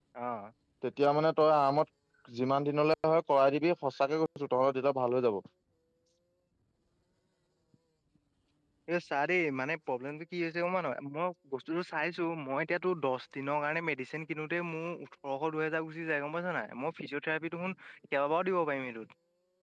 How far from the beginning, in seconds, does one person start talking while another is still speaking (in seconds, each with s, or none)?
none